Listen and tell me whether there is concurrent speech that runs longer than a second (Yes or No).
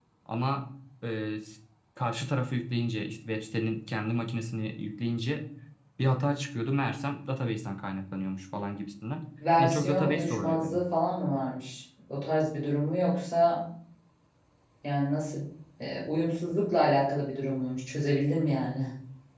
Yes